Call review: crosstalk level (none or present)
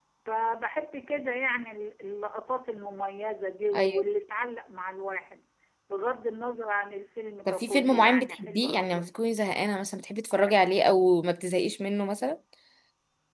present